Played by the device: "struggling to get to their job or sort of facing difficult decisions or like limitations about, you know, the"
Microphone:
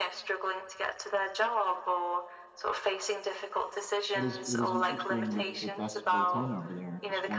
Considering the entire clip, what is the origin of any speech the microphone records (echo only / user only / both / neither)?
both